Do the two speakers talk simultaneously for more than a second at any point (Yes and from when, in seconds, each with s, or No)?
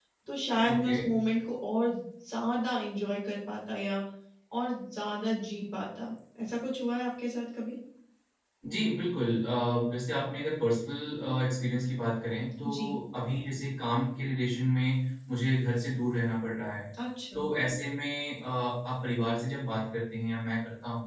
No